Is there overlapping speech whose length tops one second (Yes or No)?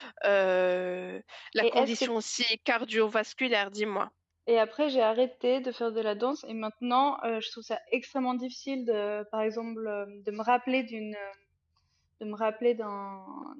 No